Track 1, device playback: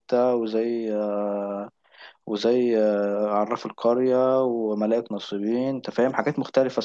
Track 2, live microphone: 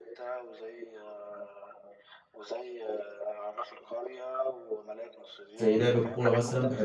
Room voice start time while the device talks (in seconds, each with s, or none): 5.5 s